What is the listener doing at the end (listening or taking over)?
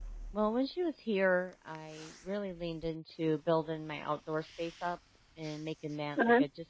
listening